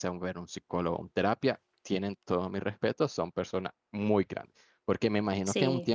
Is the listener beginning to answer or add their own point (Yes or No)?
No